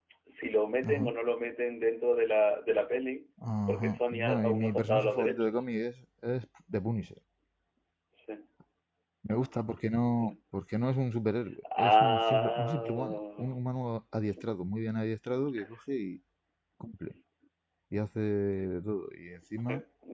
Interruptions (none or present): present